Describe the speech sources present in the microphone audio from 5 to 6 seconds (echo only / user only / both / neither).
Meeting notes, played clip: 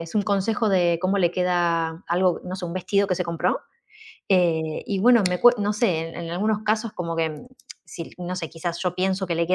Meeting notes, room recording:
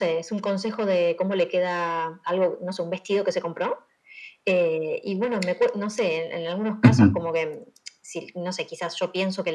echo only